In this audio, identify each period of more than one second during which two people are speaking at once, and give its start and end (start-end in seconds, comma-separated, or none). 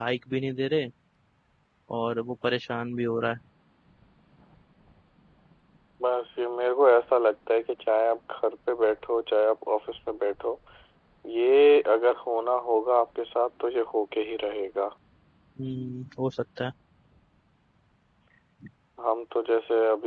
none